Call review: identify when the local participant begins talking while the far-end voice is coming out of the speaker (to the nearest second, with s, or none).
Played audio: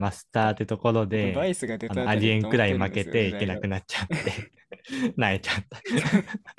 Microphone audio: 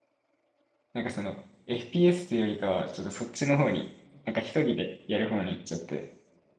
1 s